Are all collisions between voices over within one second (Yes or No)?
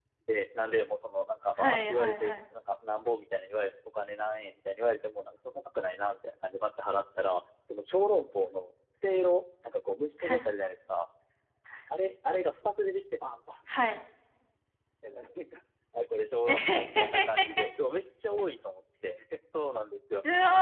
No